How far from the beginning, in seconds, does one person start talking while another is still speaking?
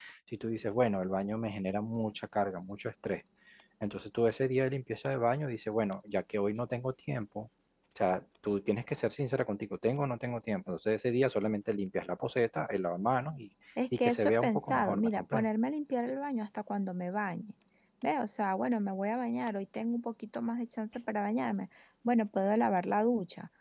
13.8 s

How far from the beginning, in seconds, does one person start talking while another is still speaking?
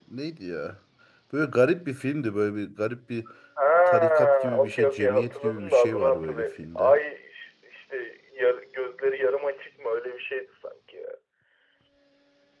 3.9 s

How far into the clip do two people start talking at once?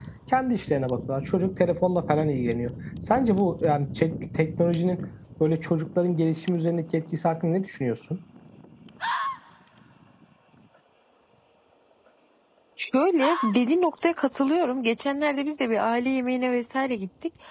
none

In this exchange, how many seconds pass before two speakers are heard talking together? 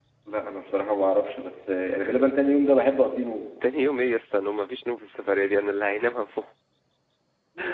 none

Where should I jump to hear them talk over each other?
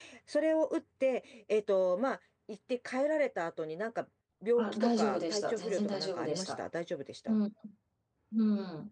4.6 s

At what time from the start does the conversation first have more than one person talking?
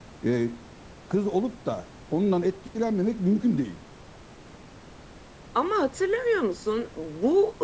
none

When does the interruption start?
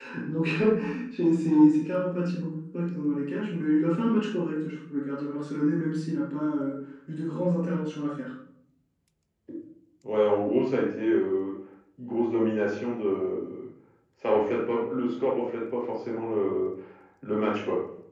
none

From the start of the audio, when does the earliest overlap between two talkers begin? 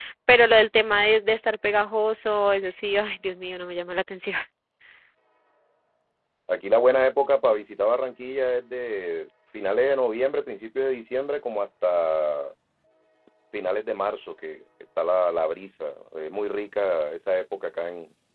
none

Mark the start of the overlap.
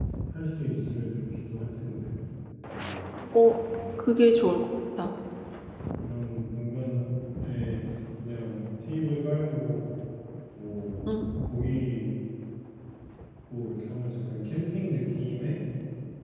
none

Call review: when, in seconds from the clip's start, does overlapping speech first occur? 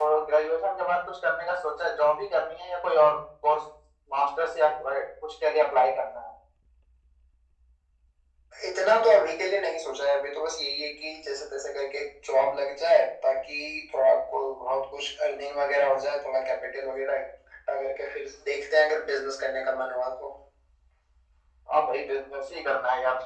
none

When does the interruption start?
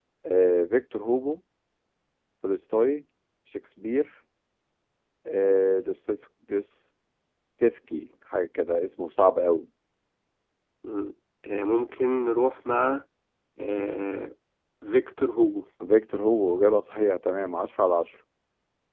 none

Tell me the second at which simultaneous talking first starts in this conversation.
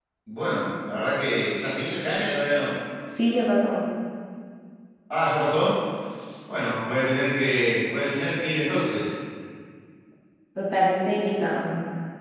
none

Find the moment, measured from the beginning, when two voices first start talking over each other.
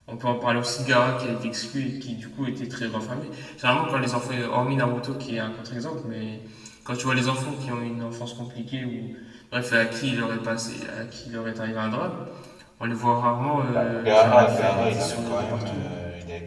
13.7 s

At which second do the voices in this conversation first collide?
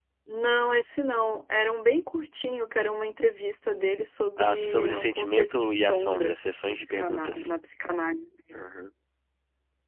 4.4 s

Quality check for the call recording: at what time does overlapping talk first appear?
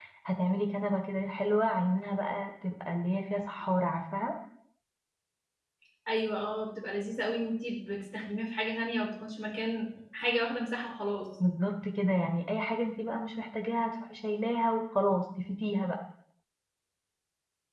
none

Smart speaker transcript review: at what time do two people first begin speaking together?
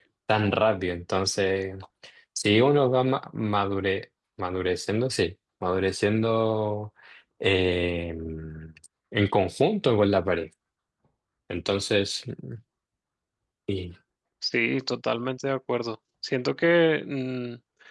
none

